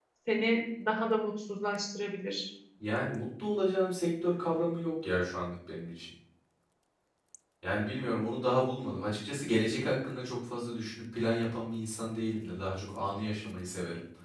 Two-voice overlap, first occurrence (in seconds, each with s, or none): none